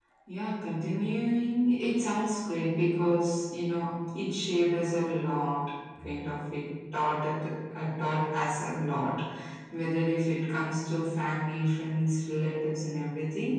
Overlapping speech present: No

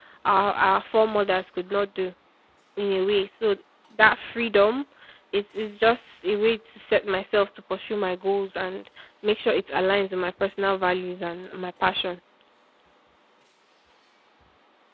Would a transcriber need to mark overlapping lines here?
No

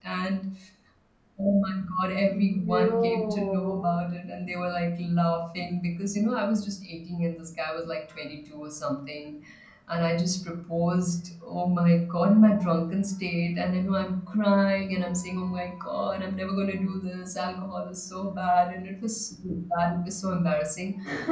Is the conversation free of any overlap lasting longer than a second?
No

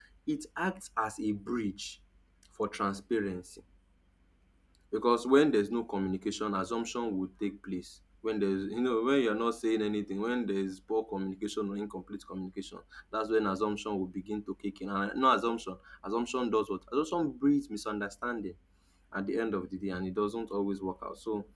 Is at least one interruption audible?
No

